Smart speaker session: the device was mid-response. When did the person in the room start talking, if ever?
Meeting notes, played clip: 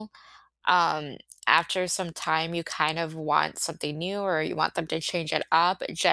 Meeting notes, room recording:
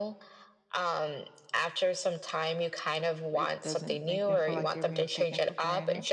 3.3 s

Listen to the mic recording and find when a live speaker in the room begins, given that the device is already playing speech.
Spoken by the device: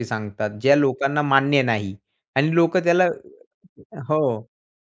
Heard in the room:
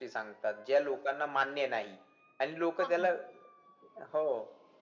2.8 s

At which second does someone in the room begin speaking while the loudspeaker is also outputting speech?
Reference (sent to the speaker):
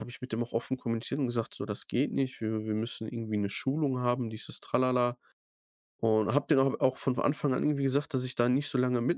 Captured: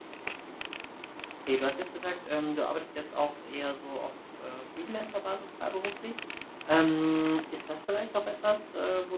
1.4 s

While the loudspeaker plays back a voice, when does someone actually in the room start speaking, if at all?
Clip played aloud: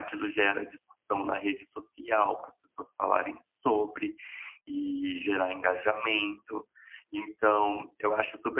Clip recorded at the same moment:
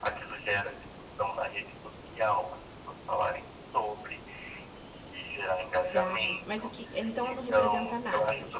5.8 s

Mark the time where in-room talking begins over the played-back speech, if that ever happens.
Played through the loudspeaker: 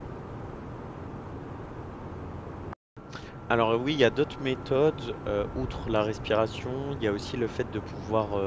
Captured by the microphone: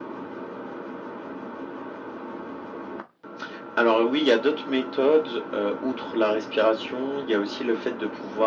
none

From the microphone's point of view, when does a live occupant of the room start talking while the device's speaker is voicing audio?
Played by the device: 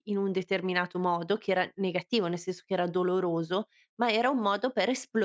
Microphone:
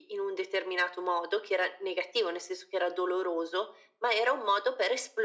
none

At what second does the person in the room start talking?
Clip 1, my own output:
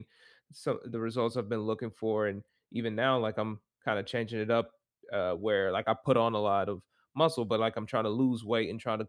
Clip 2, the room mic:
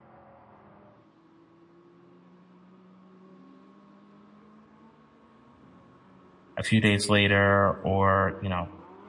6.6 s

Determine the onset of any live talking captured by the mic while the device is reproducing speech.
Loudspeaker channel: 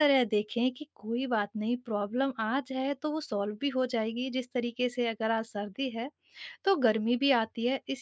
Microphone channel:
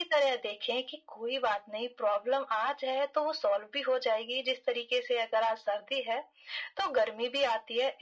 none

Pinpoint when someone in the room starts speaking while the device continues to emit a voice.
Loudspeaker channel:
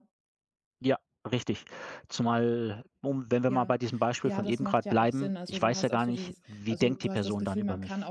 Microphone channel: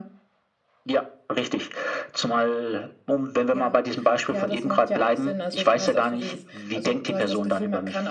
none

